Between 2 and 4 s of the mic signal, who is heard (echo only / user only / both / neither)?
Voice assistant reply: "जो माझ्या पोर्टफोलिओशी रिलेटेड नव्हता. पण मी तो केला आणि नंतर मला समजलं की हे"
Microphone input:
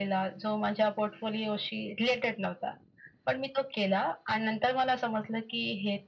echo only